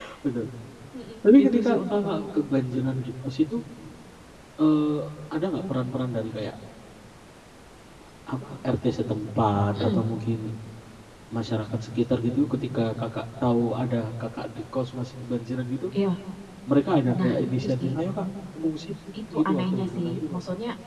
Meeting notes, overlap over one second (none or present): present